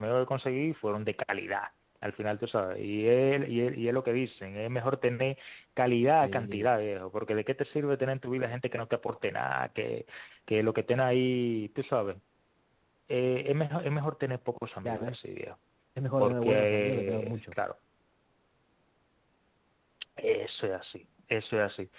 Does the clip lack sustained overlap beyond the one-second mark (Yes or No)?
No